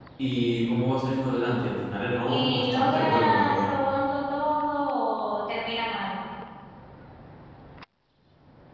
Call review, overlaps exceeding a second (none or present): present